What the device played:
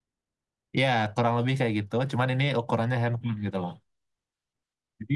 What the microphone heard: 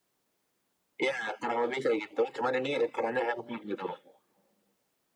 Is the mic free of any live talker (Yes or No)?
Yes